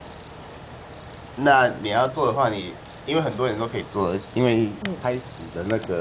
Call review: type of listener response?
listening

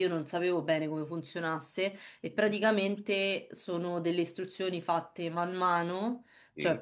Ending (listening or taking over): listening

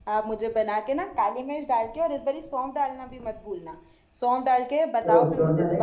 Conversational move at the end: taking over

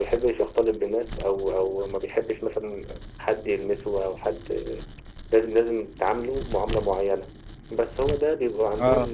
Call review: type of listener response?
listening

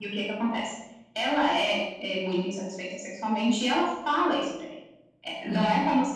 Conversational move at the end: taking over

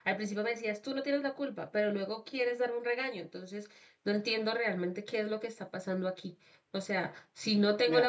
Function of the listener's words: taking over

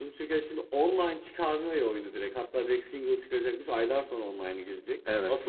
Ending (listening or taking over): listening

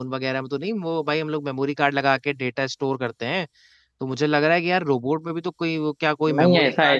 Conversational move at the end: taking over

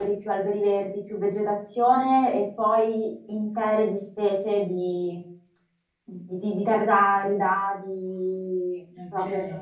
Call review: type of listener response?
listening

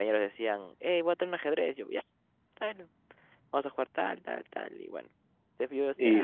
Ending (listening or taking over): taking over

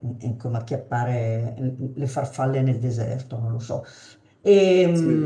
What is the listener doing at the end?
listening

